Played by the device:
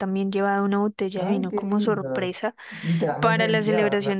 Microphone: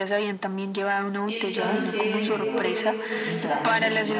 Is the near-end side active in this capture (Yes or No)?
Yes